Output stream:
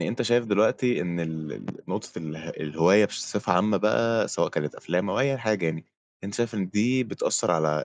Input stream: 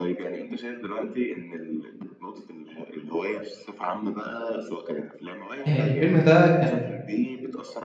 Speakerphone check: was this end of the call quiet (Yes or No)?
No